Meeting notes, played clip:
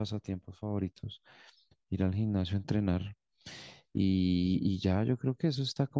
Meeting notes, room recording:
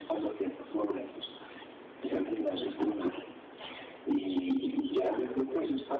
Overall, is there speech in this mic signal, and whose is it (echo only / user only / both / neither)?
both